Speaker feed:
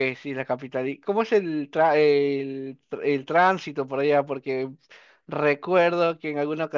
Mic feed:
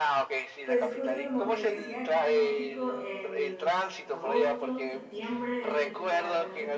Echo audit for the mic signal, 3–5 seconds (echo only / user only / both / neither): both